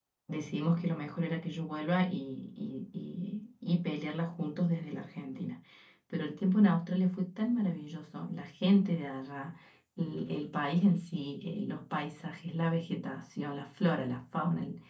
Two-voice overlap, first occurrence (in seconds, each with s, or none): none